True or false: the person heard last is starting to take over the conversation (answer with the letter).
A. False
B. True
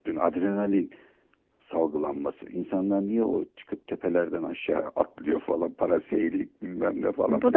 B